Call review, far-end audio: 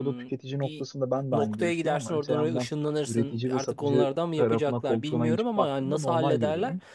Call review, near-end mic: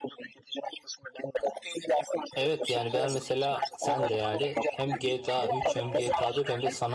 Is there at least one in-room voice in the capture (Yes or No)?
Yes